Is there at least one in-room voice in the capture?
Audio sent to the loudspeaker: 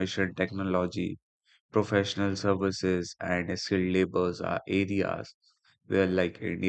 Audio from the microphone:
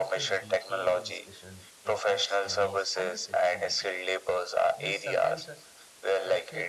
Yes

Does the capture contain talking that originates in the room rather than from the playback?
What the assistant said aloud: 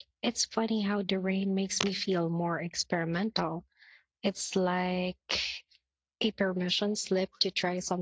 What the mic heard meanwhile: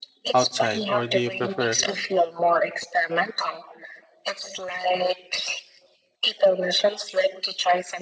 Yes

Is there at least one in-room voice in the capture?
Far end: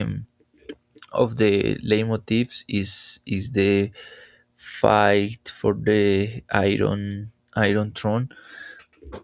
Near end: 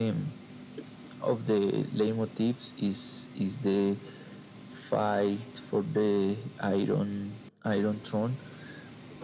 No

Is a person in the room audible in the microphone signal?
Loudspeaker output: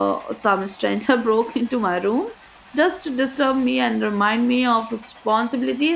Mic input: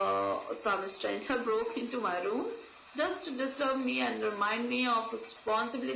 No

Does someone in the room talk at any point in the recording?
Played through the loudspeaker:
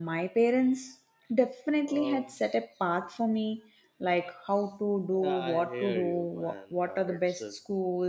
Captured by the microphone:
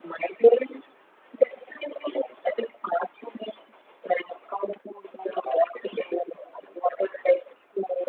No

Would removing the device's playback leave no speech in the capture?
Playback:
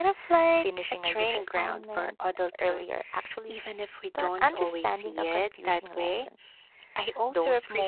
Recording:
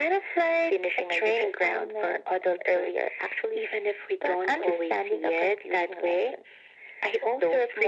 Yes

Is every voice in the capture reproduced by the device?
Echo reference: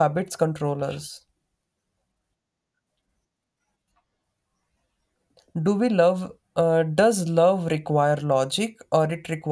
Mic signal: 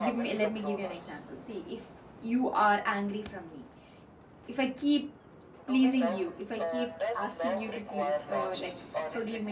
No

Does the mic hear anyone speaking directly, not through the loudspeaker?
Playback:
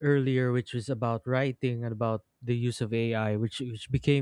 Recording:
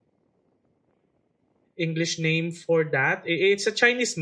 Yes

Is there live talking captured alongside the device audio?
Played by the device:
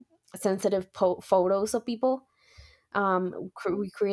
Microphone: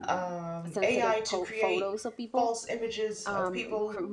Yes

